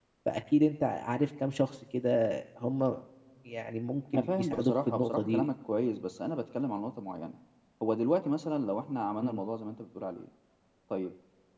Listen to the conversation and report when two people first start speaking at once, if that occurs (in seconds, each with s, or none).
4.1 s